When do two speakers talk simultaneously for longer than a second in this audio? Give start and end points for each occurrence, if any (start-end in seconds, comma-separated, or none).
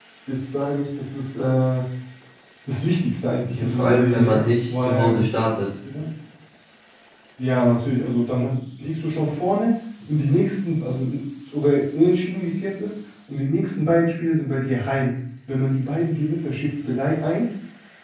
3.5-5.2